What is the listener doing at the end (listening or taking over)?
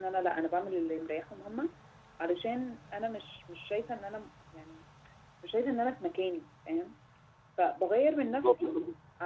listening